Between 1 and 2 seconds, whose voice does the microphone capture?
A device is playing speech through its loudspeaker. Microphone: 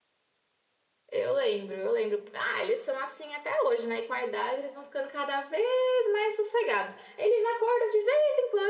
user only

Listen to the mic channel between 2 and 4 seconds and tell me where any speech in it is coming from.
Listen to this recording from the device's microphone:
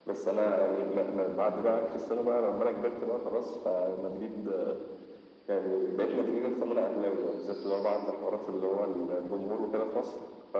echo only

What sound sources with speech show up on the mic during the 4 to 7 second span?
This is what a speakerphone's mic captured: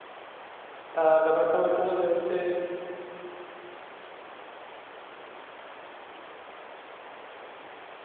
neither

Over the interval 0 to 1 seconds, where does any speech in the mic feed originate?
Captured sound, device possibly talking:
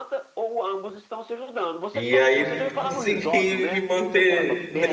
echo only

